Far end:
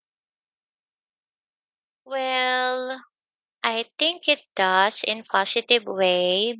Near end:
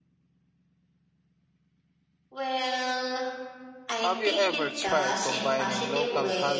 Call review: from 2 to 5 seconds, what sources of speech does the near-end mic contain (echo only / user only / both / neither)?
both